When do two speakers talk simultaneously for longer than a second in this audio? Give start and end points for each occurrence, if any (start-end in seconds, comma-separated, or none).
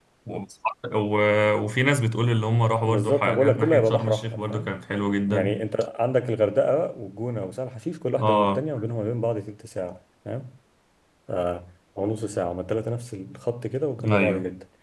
2.8-4.7